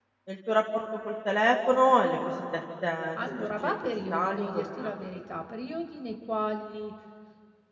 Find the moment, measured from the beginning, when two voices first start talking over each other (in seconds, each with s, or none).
3.1 s